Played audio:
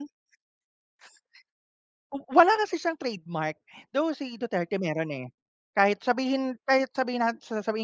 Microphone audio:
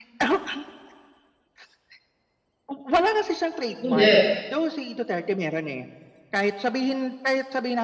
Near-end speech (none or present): present